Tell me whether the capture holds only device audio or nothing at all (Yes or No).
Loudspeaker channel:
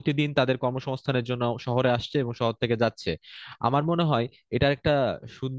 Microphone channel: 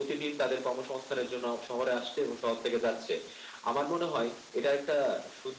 Yes